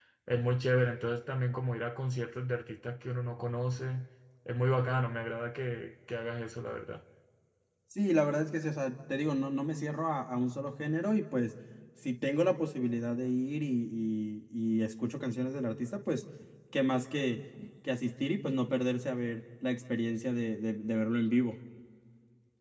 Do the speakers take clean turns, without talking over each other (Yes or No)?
Yes